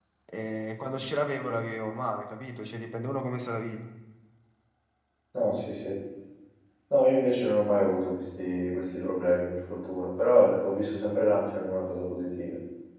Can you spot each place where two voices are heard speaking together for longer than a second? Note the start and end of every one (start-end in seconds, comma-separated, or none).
none